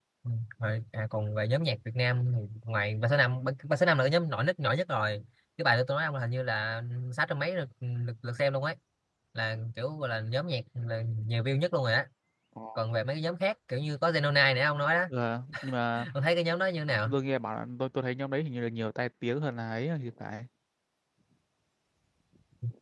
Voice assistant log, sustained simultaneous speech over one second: none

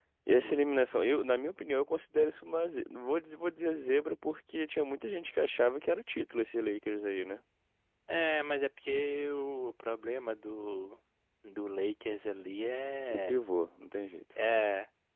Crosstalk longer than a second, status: none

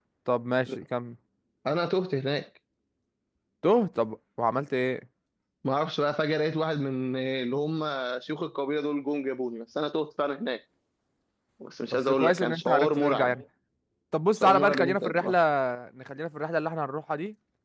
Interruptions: present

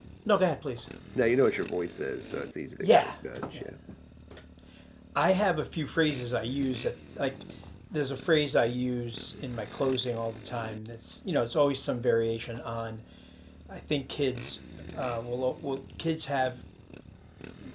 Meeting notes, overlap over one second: none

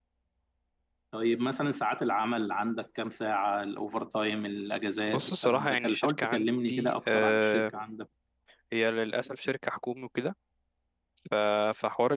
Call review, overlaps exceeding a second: present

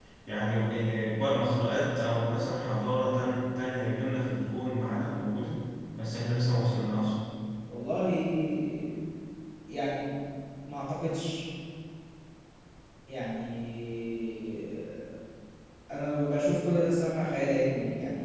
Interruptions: none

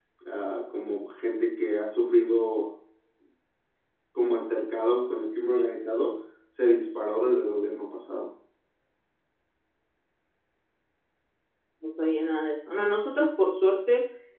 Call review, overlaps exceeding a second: none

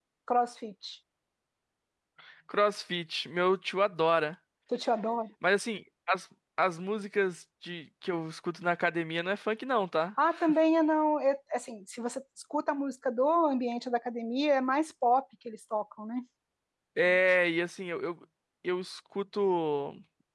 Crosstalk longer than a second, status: none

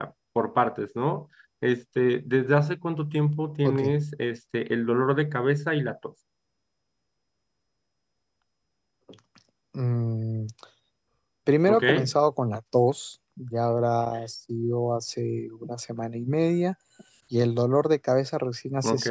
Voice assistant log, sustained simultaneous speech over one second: none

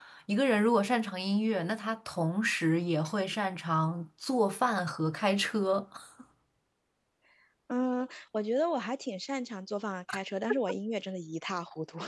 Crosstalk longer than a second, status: none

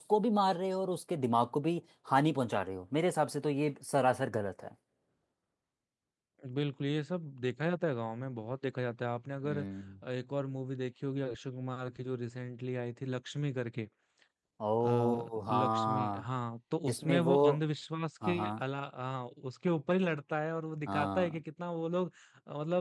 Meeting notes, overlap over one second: present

